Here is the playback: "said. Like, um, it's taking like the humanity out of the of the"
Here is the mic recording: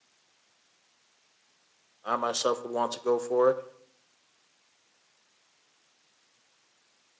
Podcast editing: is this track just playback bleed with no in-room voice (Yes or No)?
No